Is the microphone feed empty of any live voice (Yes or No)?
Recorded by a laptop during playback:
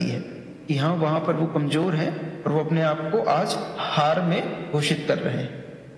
Yes